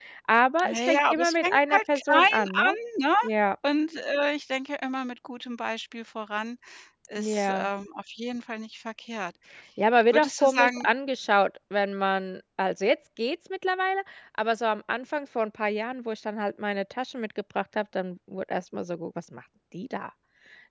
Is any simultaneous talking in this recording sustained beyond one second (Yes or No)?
Yes